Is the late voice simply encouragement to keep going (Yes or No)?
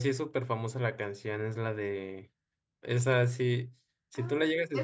No